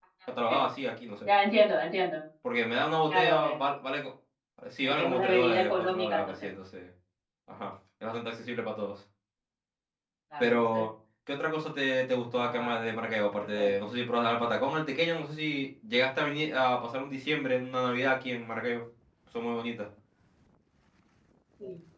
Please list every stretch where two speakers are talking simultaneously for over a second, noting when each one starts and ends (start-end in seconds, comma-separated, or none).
4.8-6.3